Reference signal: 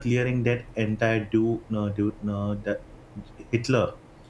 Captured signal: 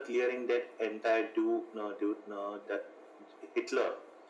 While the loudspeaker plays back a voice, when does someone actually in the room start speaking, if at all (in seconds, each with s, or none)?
none